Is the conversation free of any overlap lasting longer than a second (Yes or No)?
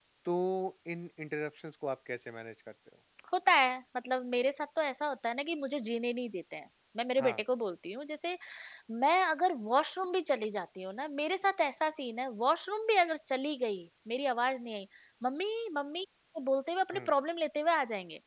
Yes